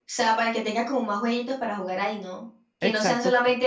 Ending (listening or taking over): listening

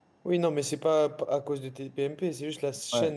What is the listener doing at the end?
listening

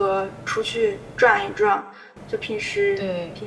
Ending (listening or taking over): listening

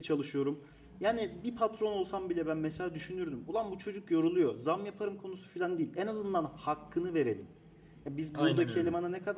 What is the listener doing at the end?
listening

